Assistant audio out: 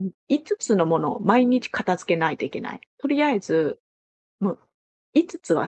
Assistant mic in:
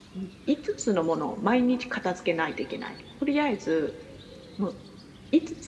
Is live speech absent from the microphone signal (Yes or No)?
Yes